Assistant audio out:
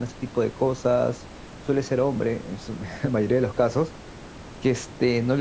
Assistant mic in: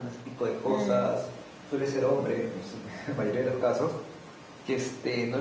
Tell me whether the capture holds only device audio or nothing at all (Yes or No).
No